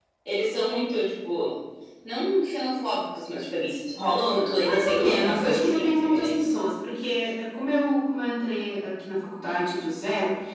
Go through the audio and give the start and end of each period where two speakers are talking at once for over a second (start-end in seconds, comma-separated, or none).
4.6-6.4